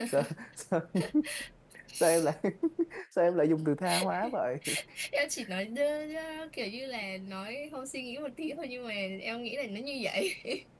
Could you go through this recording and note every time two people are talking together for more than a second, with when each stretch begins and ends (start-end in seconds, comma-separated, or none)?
none